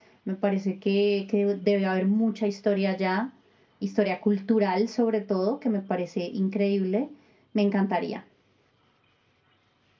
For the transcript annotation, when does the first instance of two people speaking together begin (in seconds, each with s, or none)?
none